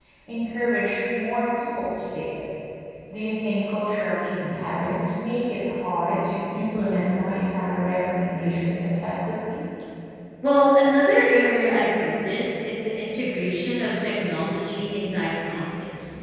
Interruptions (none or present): none